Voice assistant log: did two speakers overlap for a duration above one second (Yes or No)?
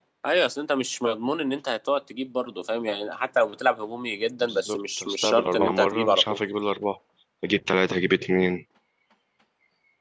Yes